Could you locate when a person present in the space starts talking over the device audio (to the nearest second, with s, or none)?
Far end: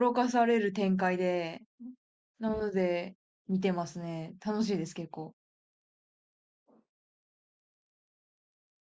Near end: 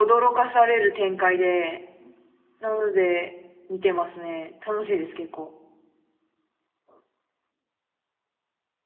none